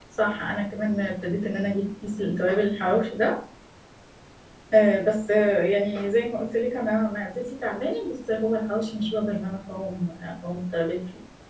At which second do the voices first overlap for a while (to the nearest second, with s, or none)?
none